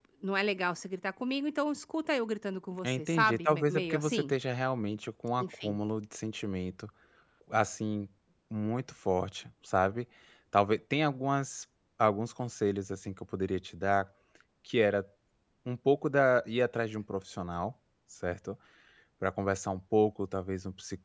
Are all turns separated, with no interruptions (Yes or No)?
No